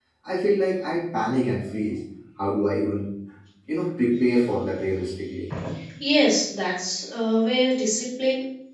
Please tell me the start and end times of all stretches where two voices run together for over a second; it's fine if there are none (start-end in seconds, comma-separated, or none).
none